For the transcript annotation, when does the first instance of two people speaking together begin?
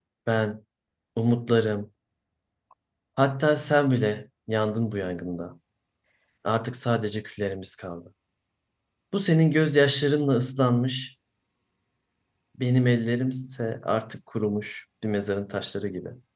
none

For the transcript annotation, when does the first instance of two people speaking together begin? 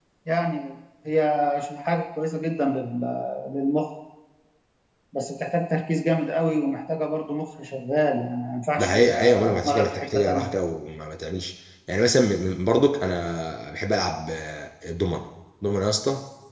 8.8 s

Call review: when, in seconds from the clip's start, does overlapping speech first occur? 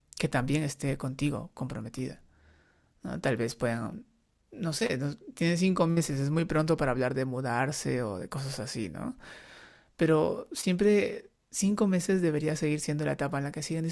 none

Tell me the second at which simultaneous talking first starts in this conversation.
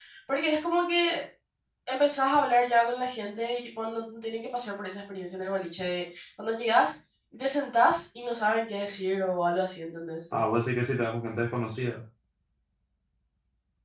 none

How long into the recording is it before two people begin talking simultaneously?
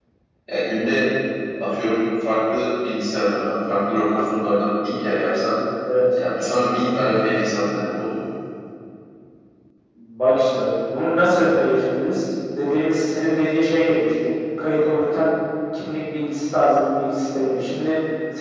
none

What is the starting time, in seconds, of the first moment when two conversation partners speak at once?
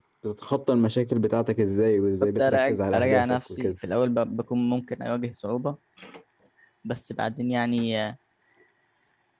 2.2 s

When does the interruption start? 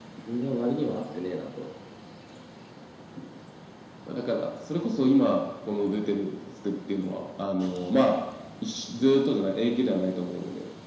none

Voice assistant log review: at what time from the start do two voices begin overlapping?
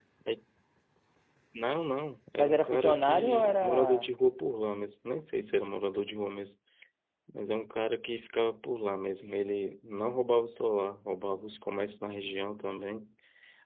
2.4 s

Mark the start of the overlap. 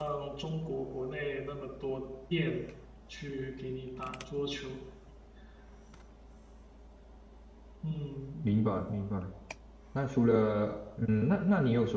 none

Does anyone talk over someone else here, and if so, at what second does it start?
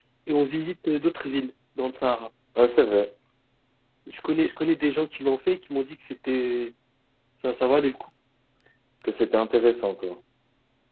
none

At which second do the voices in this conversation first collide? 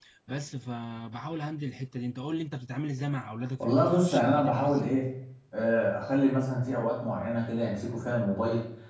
3.6 s

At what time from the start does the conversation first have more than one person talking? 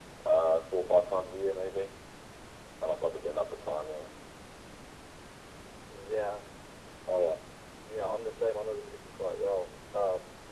none

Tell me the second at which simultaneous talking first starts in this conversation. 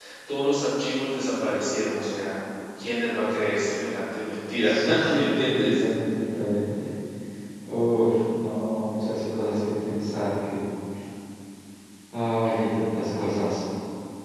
4.6 s

